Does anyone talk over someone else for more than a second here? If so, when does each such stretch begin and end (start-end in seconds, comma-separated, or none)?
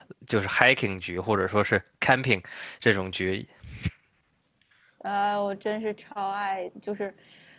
none